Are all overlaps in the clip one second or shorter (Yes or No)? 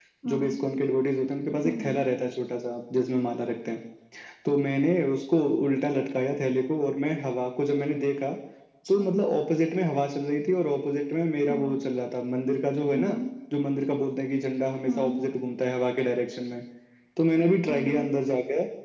Yes